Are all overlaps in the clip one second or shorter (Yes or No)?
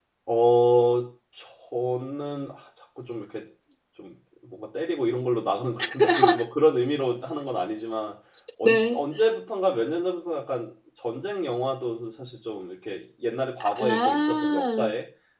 No